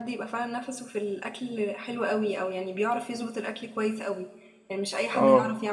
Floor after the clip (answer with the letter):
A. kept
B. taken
A